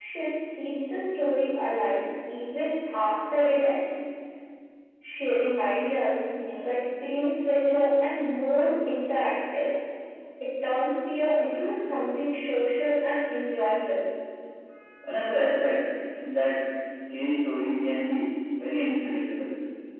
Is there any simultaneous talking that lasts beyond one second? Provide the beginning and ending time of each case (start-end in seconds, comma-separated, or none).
none